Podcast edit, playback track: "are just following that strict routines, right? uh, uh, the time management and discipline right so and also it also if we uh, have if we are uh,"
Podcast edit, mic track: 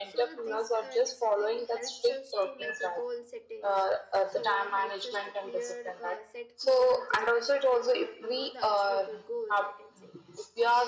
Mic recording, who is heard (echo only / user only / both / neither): both